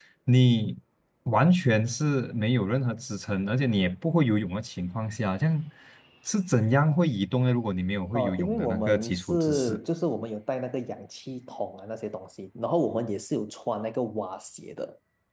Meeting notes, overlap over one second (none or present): present